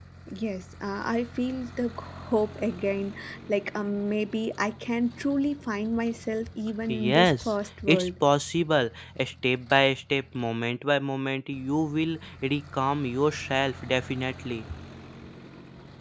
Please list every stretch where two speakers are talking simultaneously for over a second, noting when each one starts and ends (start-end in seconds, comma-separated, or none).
6.8-8.1